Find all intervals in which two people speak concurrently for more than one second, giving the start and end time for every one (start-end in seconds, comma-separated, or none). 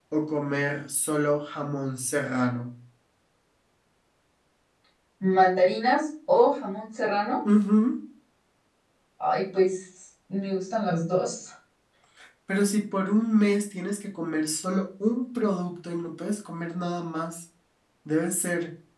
none